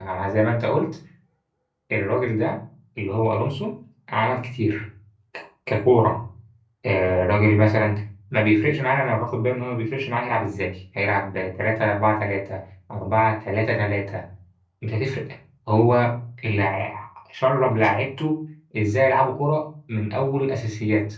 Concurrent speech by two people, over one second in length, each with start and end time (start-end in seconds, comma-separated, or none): none